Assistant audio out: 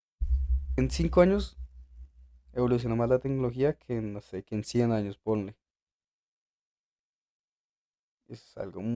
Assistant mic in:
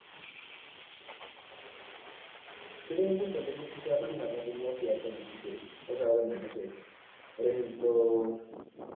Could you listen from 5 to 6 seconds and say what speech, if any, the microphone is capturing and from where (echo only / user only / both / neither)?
user only